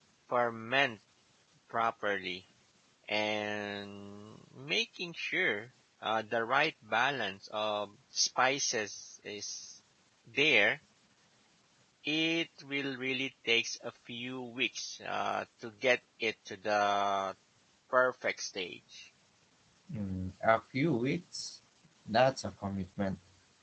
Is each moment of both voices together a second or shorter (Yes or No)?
Yes